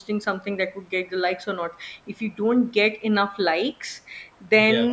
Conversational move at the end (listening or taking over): listening